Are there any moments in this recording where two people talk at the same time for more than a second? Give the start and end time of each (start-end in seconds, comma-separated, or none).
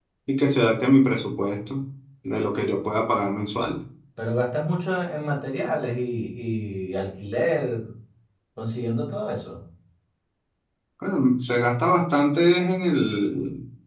none